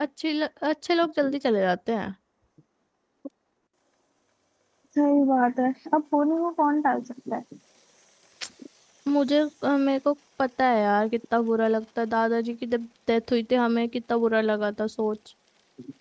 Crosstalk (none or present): none